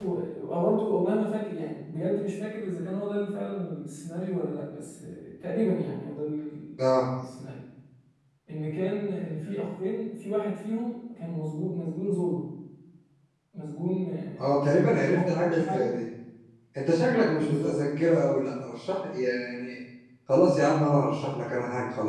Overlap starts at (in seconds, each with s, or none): 14.4 s